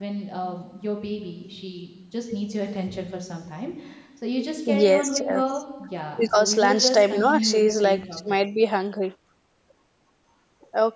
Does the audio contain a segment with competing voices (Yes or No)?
Yes